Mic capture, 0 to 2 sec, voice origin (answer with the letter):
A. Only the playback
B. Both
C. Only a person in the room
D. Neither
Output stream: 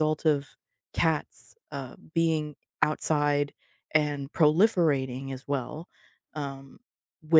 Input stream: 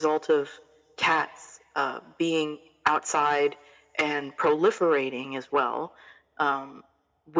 A